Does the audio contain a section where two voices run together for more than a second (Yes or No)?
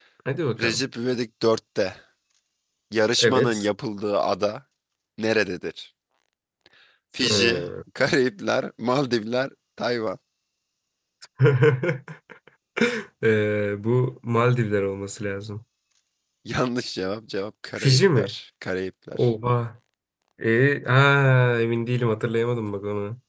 No